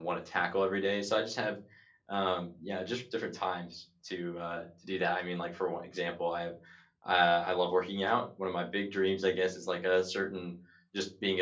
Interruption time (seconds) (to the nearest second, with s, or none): none